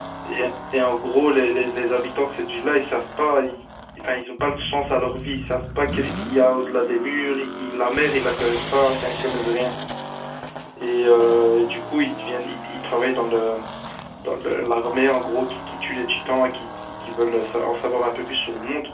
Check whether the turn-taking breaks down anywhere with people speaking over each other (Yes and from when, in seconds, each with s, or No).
No